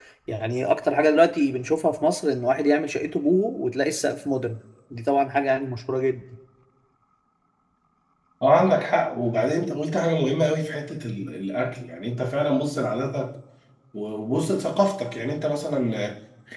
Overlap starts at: none

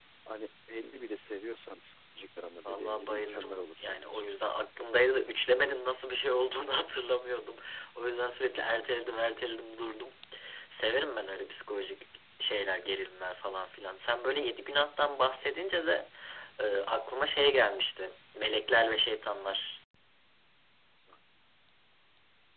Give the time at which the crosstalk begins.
2.6 s

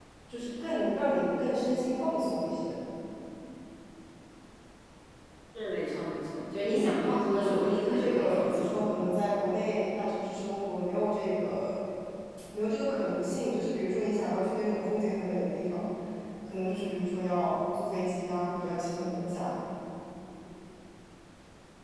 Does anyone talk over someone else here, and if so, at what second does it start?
6.6 s

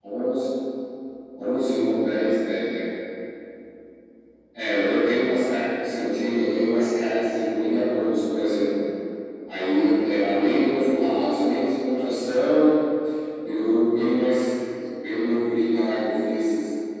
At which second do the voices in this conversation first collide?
none

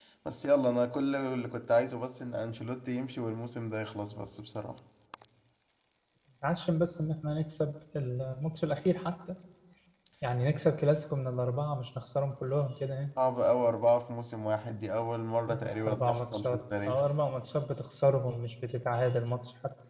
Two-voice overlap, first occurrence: 15.5 s

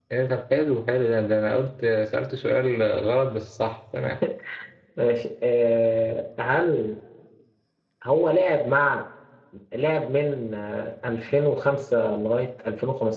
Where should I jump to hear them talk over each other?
none

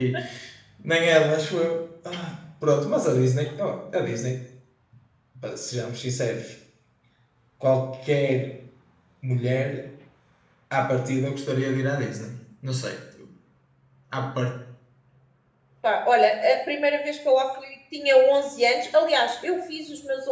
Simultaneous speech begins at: none

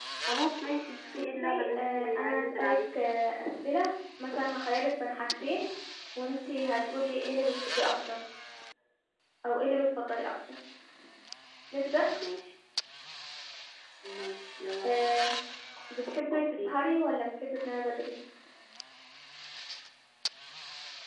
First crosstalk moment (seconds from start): 1.1 s

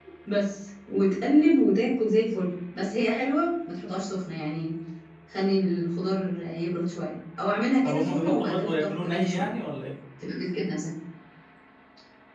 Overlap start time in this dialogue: 7.8 s

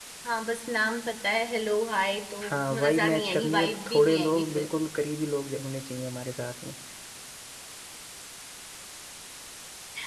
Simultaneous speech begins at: 2.4 s

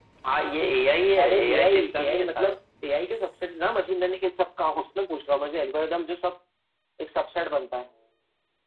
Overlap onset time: 1.2 s

